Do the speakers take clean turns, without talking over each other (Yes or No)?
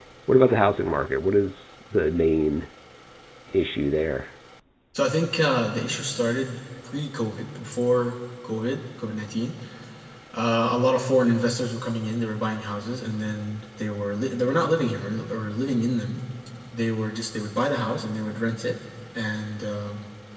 Yes